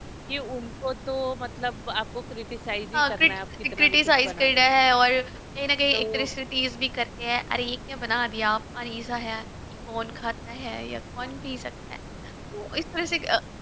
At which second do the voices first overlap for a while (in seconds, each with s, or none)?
3.0 s